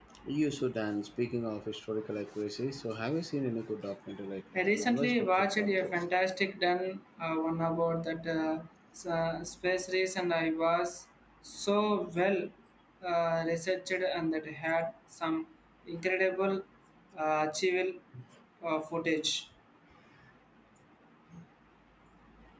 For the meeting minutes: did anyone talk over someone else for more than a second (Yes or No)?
Yes